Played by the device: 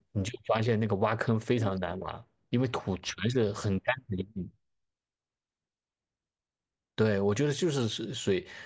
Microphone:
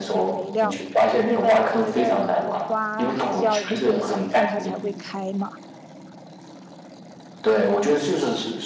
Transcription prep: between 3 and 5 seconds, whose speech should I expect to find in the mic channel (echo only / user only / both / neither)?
both